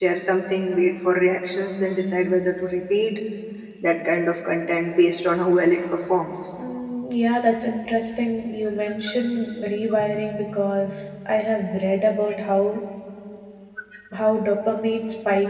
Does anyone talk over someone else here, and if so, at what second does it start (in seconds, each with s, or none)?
none